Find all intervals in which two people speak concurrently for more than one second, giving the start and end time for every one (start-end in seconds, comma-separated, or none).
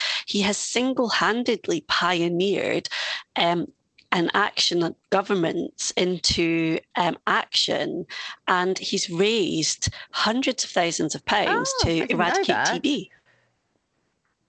11.4-12.8